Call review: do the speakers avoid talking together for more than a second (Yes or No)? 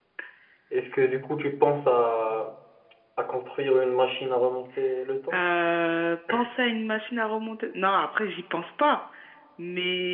Yes